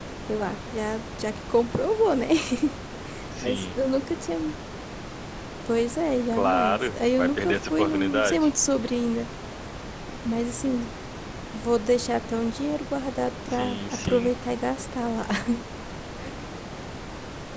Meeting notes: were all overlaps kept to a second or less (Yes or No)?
No